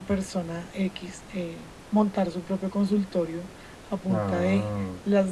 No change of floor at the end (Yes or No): Yes